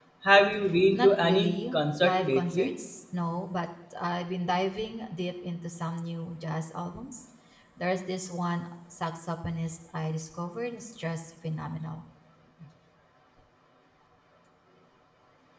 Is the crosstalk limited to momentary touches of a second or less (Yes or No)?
No